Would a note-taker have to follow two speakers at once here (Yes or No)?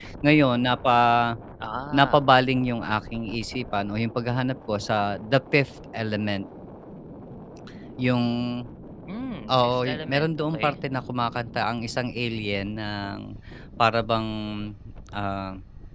Yes